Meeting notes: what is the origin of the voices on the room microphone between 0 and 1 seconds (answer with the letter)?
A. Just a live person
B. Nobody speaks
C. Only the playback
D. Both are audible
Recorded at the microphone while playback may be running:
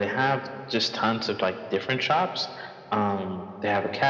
C